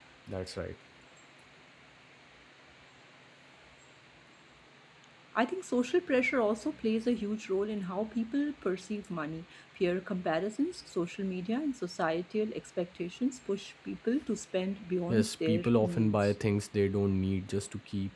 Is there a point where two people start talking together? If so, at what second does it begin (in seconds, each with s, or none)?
15.1 s